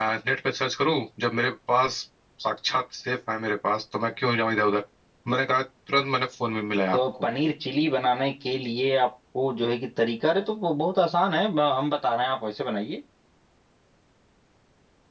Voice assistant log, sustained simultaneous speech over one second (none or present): none